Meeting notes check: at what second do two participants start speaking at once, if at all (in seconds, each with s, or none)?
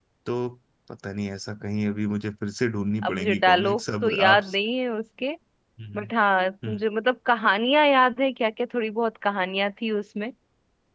3.0 s